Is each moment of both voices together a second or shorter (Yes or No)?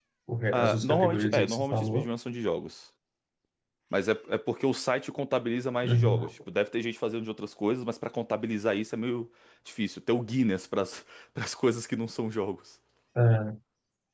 No